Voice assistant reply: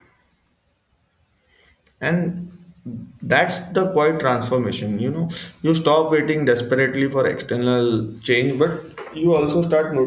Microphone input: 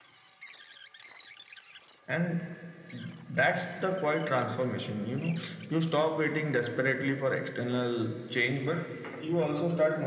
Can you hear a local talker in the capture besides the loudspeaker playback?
No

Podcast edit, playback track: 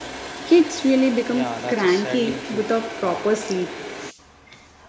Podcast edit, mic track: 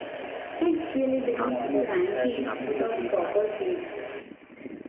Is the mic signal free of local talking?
No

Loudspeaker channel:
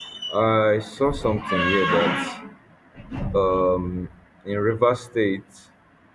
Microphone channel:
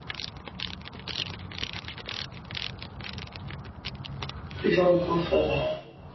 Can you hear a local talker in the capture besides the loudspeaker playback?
Yes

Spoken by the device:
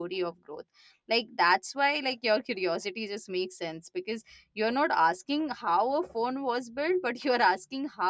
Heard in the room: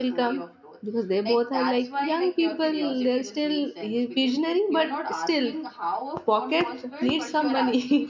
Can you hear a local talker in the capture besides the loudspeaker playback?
Yes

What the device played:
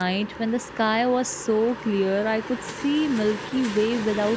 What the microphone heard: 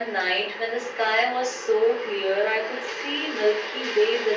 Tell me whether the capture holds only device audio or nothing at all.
Yes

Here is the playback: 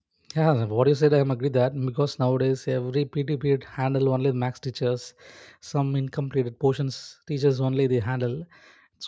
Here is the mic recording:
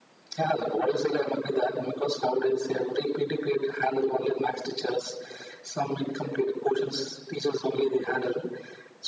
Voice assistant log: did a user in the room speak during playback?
No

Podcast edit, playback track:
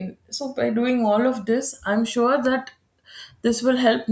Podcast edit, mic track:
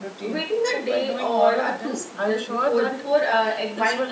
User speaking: Yes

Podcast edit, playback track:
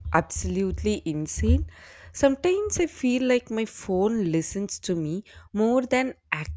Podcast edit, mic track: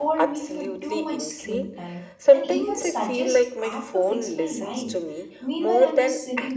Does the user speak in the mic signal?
Yes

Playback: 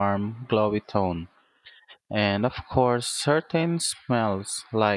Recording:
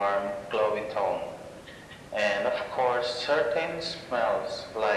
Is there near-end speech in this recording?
No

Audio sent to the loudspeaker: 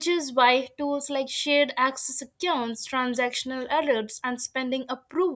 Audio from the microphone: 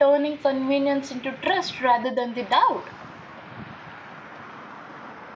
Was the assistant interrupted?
Yes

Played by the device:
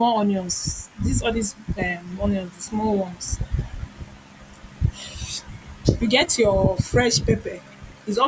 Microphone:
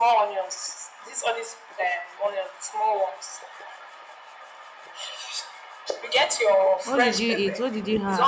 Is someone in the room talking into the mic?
Yes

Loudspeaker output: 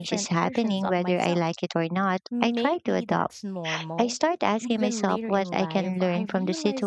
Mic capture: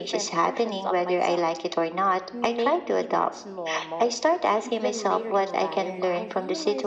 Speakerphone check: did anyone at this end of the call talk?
No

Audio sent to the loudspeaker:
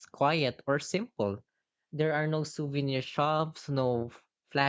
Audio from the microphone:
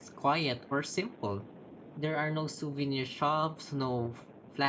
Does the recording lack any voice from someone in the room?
Yes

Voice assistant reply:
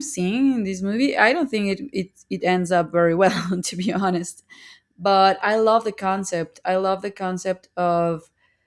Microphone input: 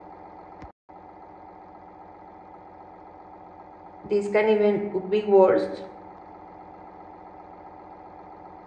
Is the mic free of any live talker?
No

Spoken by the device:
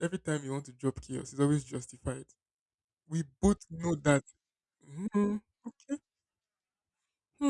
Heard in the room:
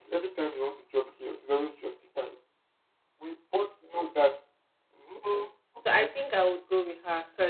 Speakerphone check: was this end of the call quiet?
No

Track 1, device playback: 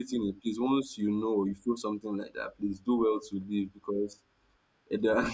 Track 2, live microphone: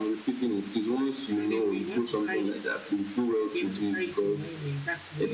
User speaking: Yes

